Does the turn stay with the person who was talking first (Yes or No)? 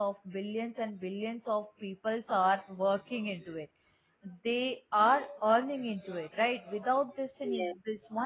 Yes